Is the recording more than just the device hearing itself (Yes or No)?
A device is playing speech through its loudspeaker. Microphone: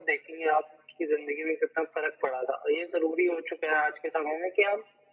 No